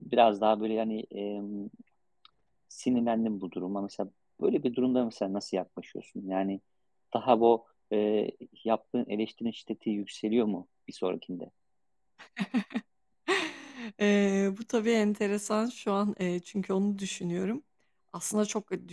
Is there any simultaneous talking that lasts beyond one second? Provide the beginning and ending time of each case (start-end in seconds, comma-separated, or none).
none